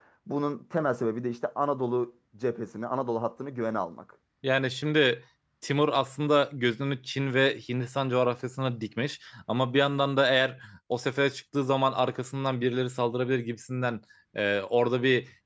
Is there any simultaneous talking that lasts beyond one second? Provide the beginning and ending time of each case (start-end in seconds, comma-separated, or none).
none